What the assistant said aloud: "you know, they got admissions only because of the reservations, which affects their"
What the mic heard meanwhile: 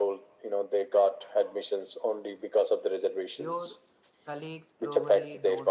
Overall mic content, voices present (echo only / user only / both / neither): both